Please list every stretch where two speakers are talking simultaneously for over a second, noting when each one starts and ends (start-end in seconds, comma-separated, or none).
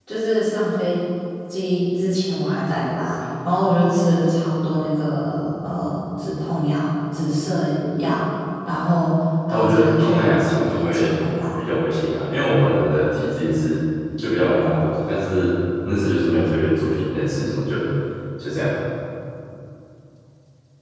9.5-11.1